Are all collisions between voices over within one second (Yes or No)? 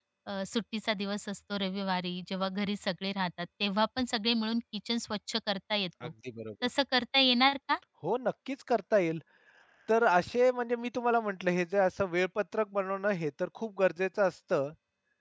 Yes